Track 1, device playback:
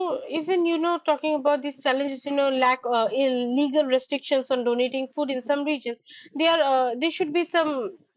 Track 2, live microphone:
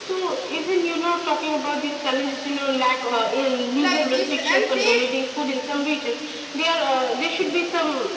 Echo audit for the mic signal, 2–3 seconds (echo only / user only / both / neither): echo only